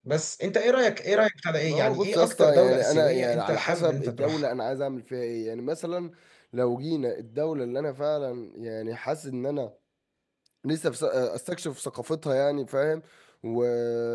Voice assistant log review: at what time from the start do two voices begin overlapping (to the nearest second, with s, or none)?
2 s